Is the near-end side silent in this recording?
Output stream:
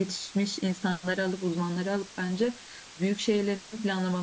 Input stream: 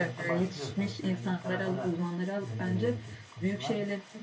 No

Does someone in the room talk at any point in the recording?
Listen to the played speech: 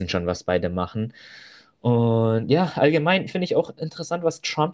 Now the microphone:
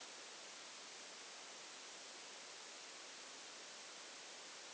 No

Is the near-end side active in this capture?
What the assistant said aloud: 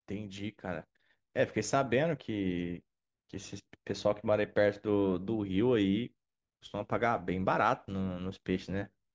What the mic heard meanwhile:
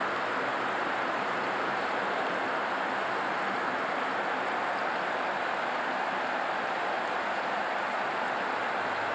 No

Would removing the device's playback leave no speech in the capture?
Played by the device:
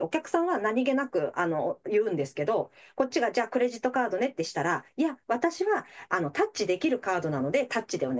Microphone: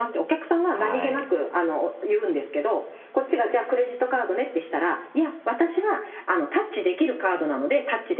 No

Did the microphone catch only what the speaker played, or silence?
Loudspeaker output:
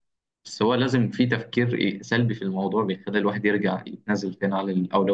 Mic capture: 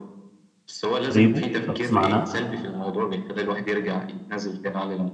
No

